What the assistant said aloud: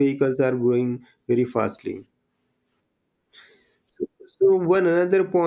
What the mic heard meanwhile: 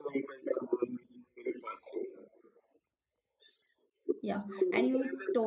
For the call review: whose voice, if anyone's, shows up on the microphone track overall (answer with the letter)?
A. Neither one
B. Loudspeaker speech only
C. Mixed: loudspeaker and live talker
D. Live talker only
C